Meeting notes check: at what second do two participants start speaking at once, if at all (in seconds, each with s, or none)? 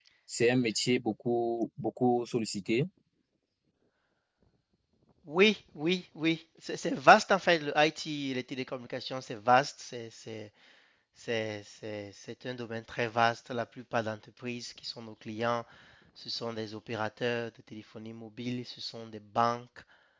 none